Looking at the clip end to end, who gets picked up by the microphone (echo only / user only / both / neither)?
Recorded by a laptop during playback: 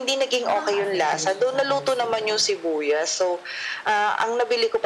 both